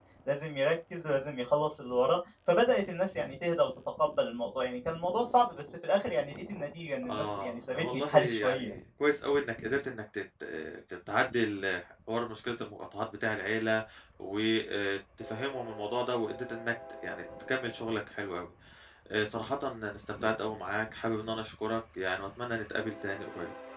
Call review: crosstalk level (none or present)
present